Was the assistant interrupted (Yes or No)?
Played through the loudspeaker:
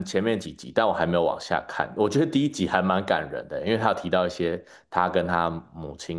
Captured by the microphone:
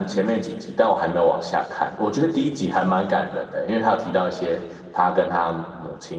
No